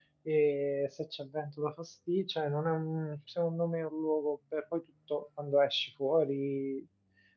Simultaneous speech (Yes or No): No